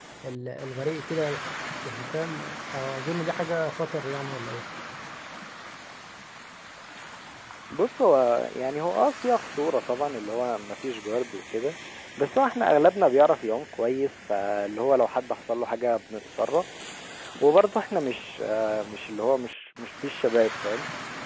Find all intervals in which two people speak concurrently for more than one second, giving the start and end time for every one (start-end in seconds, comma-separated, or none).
none